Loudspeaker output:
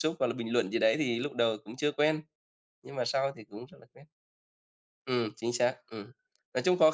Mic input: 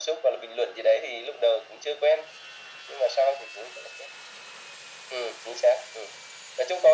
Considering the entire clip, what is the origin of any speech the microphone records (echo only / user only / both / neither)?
echo only